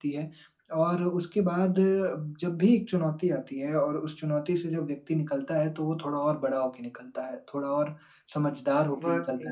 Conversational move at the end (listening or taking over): listening